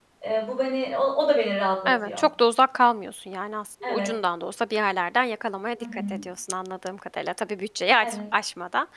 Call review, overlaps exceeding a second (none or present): none